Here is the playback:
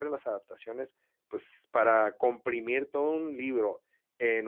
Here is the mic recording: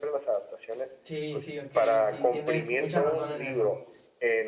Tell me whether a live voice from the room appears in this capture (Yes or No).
Yes